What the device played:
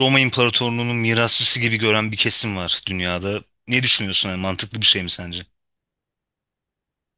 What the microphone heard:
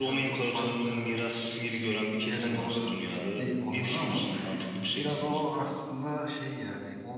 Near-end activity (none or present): present